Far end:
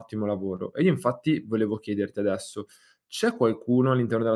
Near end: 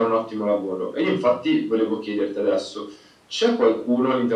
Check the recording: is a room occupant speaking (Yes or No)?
No